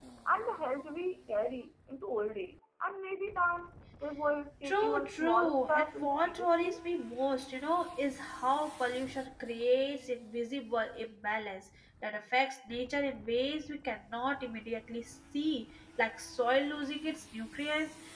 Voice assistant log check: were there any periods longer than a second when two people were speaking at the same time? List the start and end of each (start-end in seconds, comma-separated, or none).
4.6-6.8